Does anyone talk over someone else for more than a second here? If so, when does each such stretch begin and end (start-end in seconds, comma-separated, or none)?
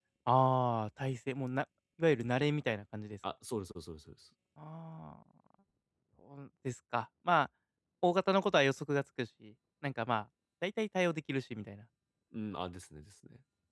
none